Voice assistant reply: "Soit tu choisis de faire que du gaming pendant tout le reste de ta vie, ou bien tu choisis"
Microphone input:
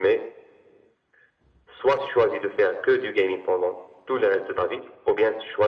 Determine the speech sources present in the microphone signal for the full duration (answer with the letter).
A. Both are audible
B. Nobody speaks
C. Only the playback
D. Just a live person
C